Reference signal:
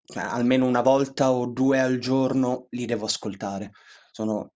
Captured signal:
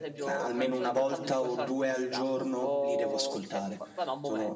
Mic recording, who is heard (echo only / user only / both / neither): both